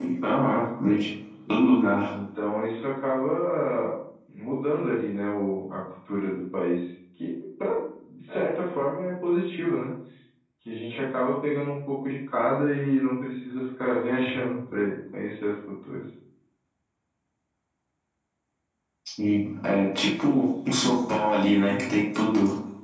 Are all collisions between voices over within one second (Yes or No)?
Yes